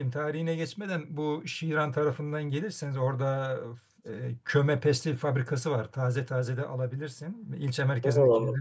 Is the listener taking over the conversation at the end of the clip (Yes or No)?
Yes